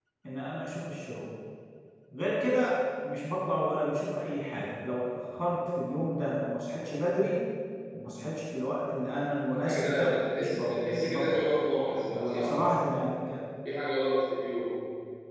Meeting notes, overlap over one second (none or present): present